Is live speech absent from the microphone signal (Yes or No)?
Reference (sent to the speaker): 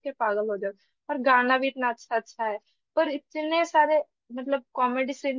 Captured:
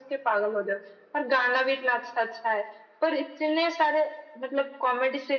Yes